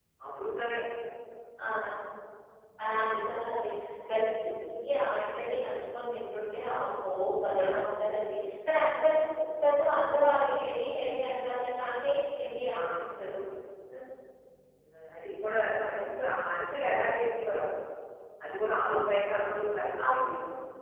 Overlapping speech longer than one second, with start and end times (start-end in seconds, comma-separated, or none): none